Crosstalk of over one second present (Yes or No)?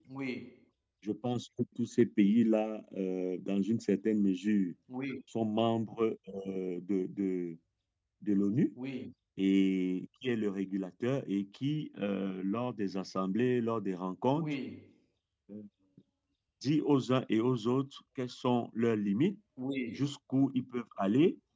No